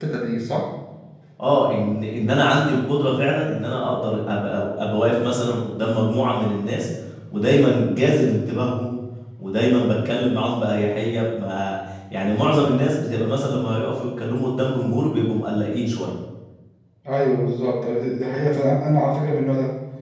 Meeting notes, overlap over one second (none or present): none